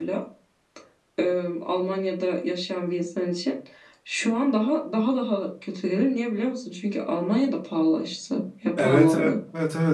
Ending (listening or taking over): taking over